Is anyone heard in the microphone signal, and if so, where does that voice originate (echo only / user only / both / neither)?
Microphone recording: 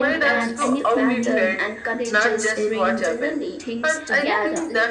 both